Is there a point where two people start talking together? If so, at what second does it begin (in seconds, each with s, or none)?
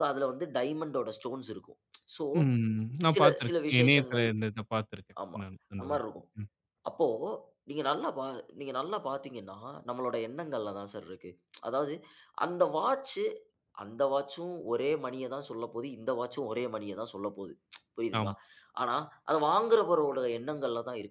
3.0 s